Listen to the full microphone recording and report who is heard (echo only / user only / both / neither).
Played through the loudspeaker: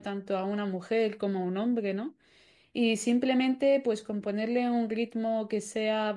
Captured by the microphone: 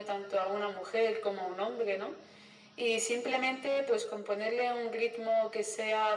echo only